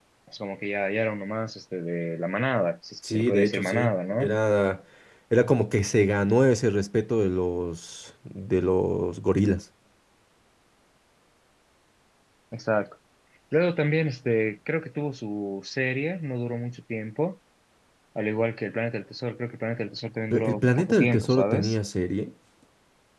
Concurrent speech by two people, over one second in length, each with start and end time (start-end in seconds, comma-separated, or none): 3.0-4.3, 20.3-21.8